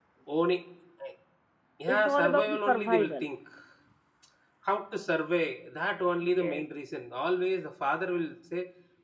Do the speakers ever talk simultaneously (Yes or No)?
Yes